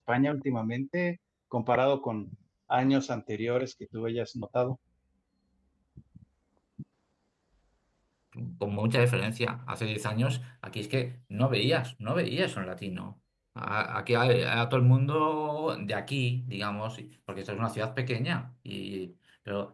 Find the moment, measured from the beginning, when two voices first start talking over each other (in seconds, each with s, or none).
none